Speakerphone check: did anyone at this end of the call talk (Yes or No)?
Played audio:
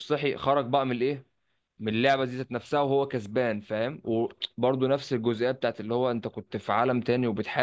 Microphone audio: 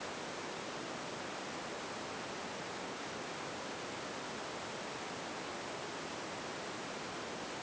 No